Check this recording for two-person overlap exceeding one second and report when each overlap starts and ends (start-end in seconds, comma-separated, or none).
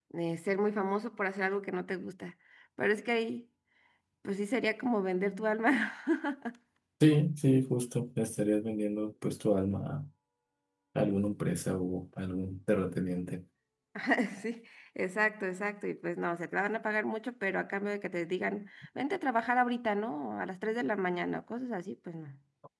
none